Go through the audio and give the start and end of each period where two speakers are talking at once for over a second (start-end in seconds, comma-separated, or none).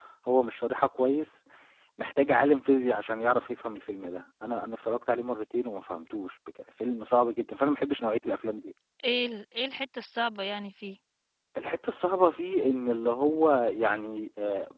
none